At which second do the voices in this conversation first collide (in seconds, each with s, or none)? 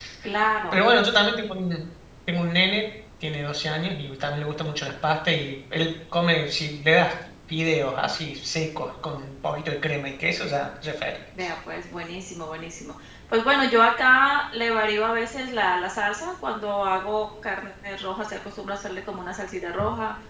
none